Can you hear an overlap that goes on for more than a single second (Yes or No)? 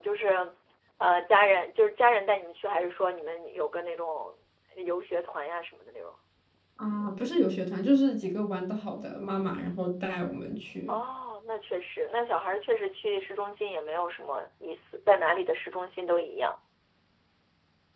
No